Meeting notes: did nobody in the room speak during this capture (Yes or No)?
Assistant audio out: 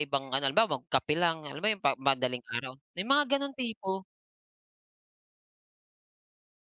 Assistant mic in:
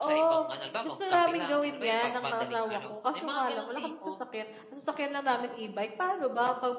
No